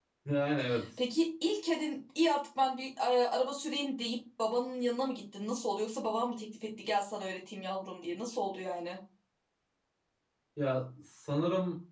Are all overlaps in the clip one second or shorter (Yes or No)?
Yes